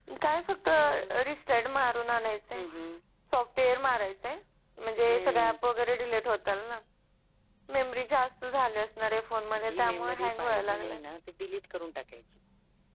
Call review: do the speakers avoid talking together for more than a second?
No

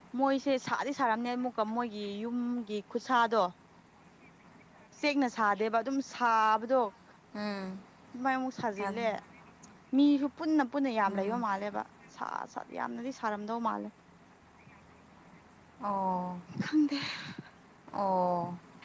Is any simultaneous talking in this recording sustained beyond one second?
No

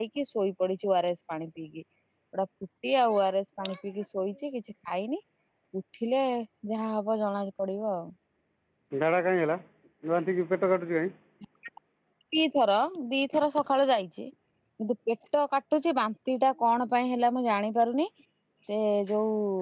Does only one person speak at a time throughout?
Yes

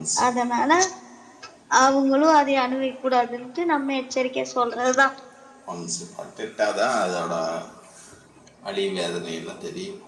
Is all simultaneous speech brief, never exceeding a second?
Yes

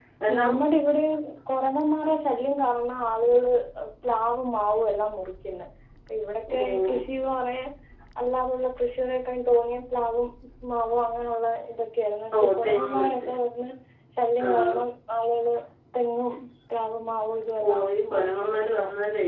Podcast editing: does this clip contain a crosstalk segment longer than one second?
Yes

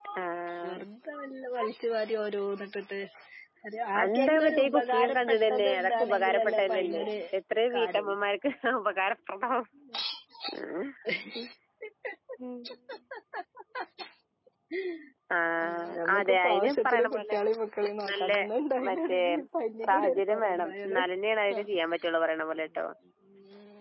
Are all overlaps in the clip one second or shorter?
No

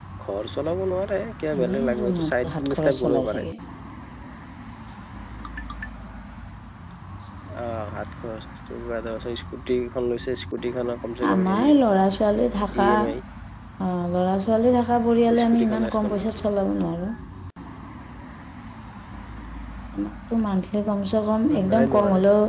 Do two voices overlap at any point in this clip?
Yes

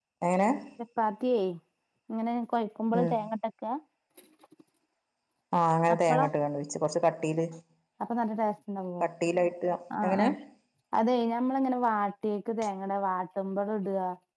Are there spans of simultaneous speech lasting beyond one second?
No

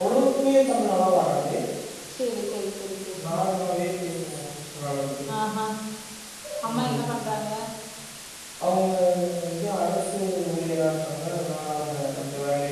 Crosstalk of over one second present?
No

